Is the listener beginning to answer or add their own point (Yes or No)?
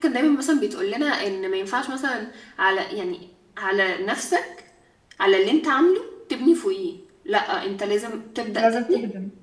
No